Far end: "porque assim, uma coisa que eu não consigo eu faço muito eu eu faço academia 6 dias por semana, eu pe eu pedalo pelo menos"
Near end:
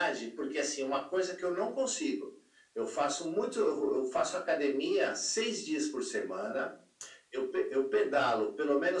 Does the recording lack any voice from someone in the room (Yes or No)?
Yes